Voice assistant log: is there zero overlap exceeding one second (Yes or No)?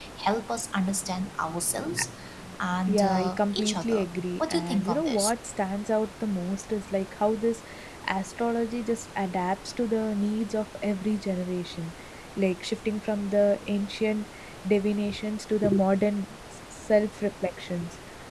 No